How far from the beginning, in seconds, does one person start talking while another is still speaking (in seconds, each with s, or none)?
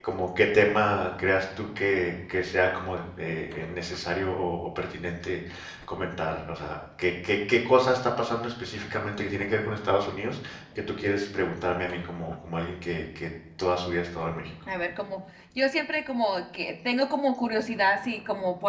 none